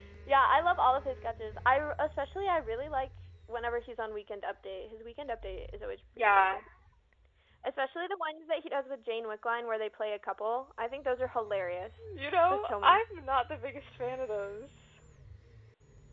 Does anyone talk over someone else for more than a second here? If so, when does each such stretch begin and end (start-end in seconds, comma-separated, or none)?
none